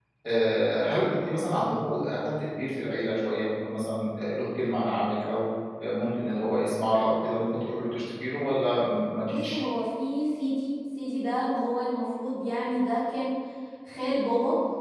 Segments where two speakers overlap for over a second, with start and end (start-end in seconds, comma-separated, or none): none